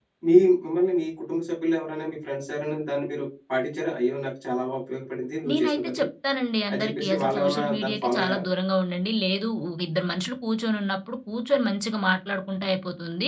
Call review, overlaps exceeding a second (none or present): present